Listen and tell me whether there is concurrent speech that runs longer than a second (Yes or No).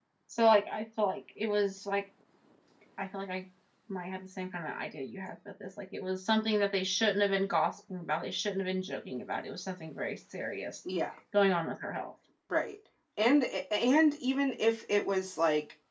No